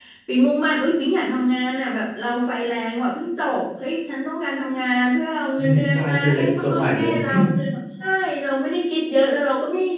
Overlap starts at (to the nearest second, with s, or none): 6 s